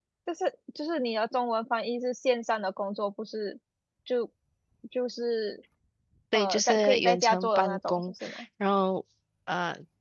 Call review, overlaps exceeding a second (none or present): present